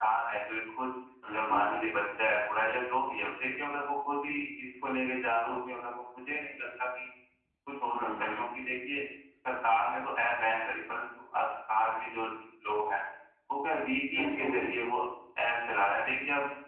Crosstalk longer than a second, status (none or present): none